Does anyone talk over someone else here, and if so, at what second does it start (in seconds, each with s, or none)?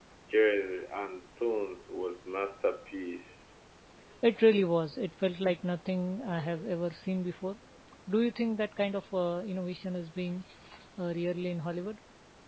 none